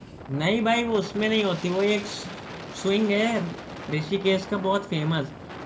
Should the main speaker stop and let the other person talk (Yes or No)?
No